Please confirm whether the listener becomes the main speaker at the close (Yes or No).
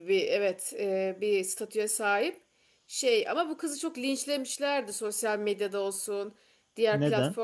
No